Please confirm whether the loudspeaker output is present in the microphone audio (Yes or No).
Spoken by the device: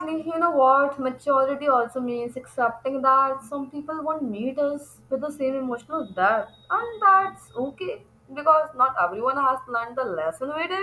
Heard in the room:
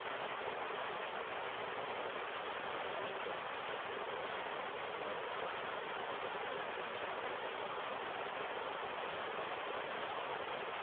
No